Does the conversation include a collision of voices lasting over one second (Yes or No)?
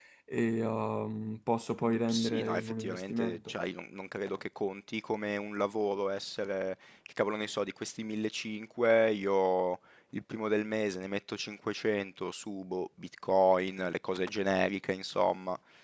Yes